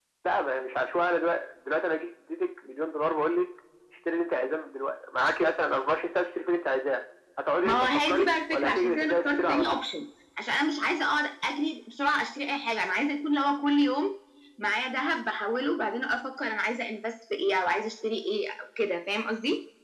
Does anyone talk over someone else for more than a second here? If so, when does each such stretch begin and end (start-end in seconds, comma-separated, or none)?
7.6-9.8